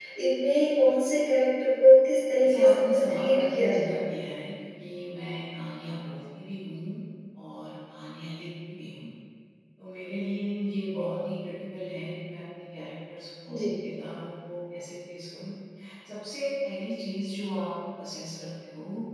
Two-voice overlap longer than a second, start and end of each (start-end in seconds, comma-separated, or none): 2.4-3.9